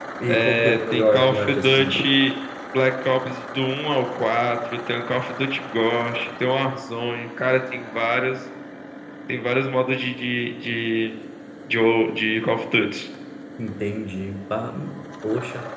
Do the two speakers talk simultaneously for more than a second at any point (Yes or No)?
Yes